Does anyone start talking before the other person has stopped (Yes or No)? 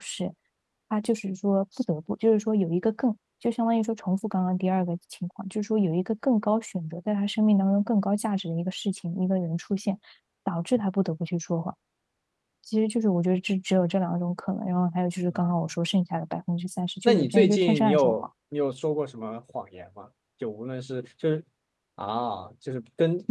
Yes